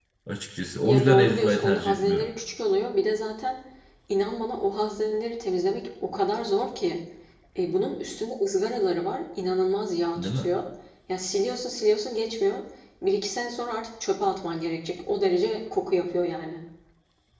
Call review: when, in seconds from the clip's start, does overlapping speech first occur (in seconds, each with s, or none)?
0.8 s